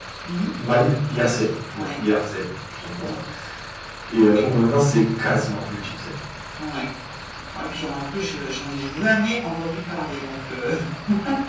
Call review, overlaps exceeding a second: none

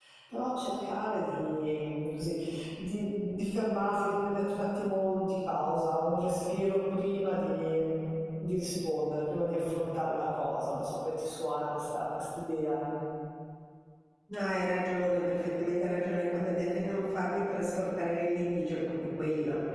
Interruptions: none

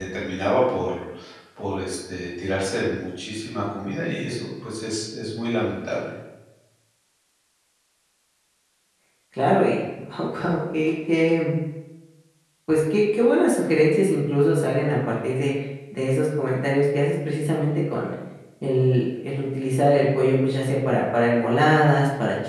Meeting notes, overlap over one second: none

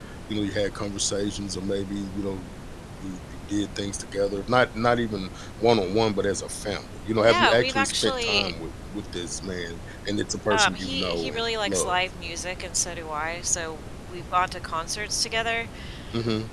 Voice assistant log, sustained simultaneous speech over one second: present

